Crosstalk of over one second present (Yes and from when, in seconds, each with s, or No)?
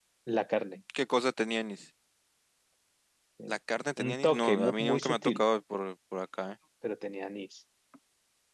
Yes, from 4.0 s